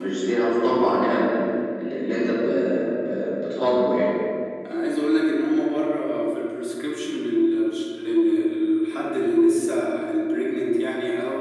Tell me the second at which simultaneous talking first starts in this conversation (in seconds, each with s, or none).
none